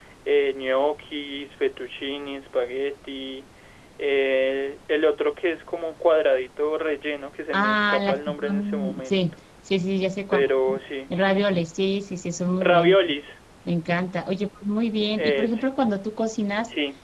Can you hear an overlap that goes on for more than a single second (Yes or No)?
Yes